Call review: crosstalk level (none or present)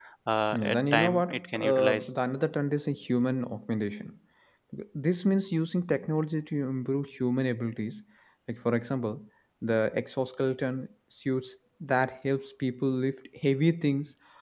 present